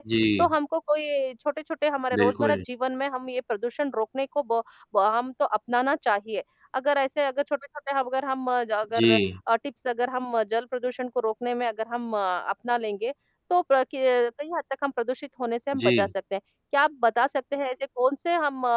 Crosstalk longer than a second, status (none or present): none